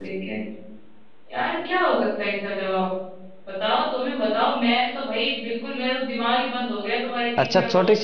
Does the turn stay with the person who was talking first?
No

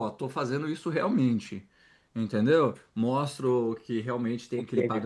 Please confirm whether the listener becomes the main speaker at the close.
No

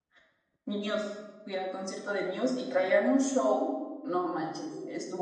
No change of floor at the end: Yes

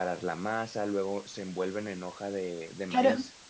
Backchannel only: No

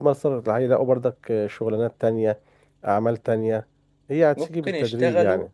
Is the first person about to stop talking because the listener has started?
Yes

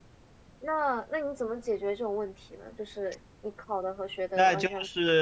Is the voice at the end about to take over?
Yes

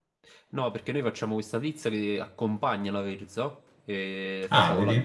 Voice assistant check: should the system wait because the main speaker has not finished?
Yes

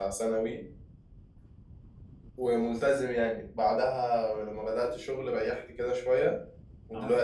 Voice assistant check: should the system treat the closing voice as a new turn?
No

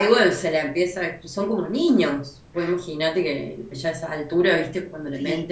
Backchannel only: Yes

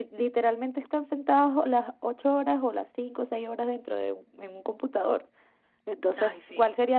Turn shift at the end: No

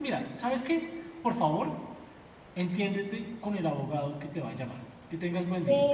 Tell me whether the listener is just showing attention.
No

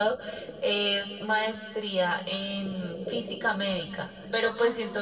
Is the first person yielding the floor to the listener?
No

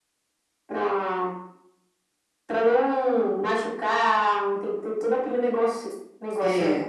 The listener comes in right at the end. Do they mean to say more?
Yes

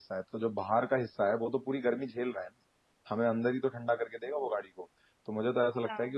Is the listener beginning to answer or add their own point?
No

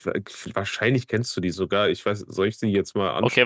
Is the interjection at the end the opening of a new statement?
Yes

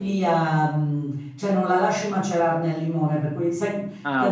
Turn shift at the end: No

